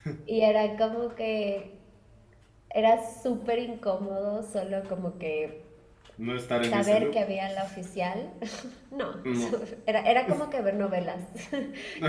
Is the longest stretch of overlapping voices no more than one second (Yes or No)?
Yes